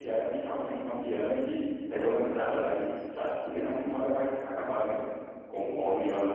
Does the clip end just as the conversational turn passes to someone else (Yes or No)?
No